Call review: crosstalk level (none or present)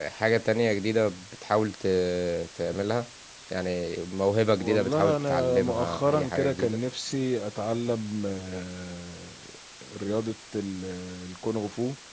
present